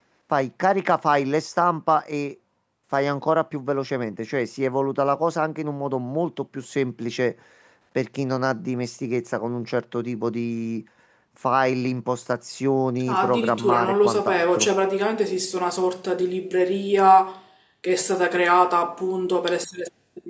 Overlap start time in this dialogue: 13.1 s

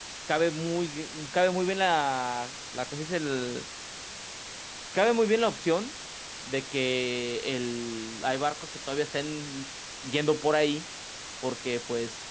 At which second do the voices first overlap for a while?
none

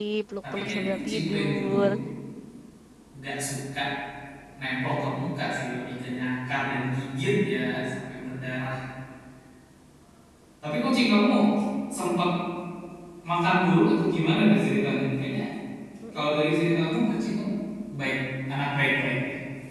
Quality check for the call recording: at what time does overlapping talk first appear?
0.5 s

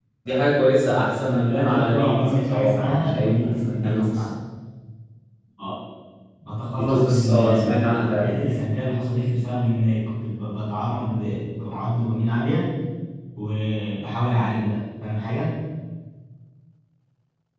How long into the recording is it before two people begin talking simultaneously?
0.8 s

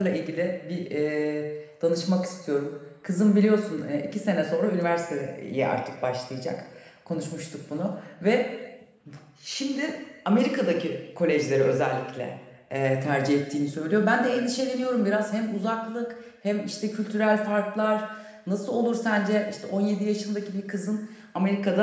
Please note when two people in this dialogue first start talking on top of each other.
none

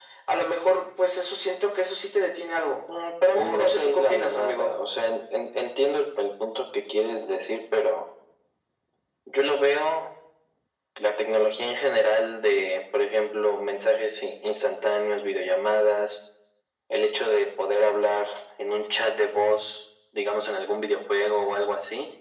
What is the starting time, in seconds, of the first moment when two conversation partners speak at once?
3.3 s

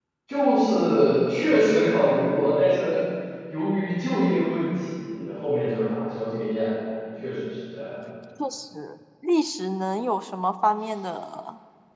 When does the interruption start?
none

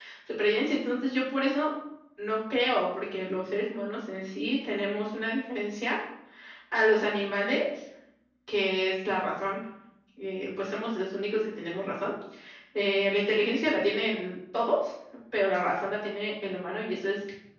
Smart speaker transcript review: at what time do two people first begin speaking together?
none

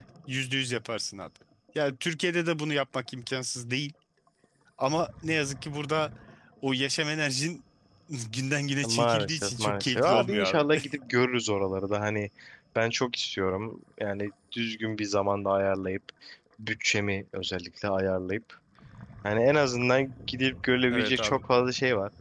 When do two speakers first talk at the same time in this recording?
8.8 s

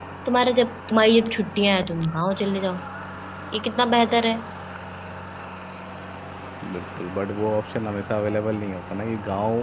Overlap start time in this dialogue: none

